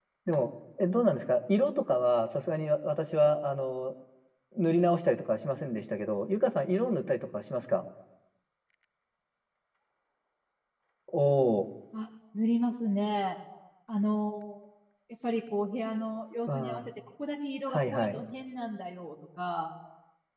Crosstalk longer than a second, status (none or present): none